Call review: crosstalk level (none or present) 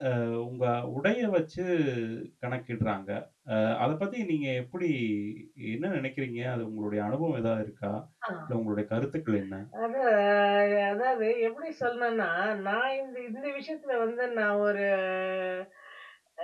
none